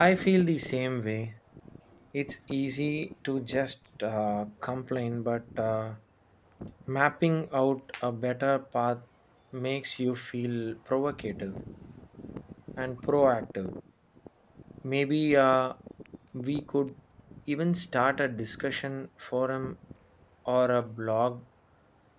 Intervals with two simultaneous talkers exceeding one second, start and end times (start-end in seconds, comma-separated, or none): none